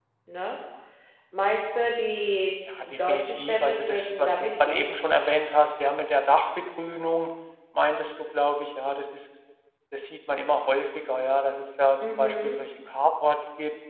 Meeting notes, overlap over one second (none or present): present